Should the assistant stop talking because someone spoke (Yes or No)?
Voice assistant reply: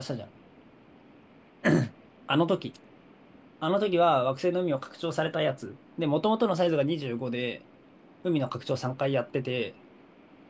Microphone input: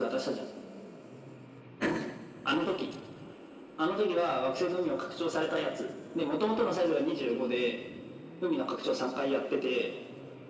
No